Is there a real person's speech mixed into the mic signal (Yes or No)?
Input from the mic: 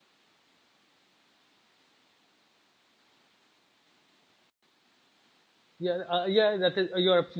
Yes